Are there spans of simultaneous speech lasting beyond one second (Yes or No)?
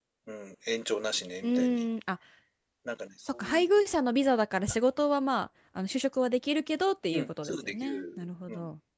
Yes